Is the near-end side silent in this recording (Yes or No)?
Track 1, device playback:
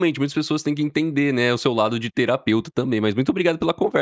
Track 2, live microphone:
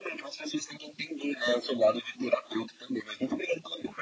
Yes